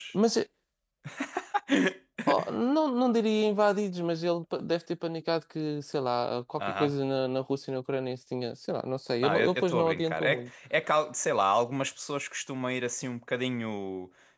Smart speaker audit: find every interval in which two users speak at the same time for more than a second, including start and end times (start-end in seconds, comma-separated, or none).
9.2-10.5